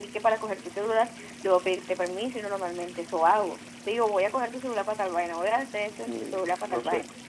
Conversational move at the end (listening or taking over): taking over